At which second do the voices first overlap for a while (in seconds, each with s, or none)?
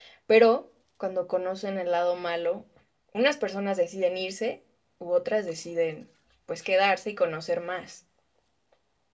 none